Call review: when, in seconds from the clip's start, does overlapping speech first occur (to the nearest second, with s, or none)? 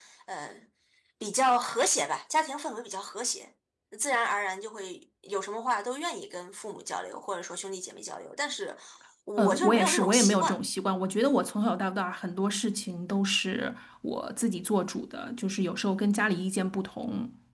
9 s